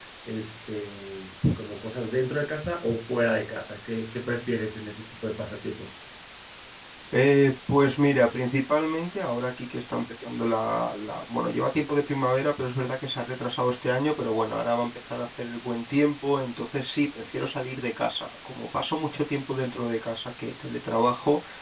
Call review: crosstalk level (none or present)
none